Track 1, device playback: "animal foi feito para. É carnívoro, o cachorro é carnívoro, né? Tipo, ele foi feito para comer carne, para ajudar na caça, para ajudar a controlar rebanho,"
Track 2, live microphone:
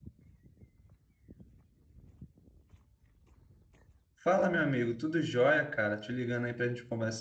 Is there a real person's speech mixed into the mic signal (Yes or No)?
Yes